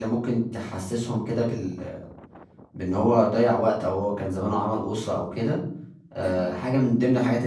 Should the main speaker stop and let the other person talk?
No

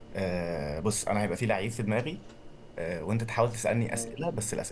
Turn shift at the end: No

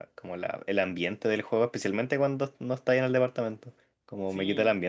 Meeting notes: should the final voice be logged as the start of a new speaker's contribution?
No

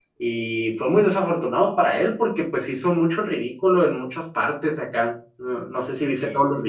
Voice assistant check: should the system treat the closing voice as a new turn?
No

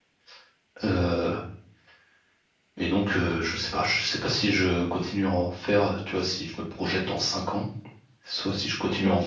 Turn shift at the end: No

